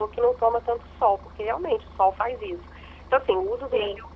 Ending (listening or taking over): listening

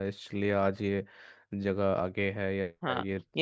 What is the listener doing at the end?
taking over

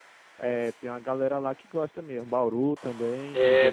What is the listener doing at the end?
taking over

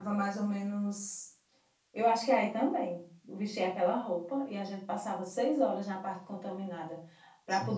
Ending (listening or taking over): listening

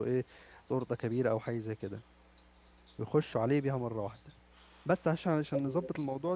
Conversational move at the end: listening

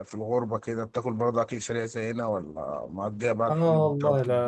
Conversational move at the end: taking over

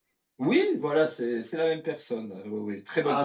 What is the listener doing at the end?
taking over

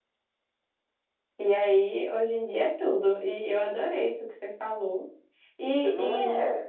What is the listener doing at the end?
listening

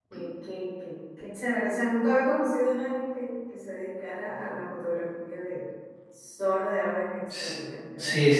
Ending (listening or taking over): taking over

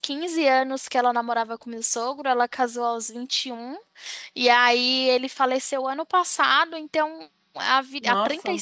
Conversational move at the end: listening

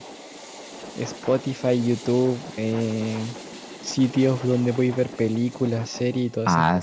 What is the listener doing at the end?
taking over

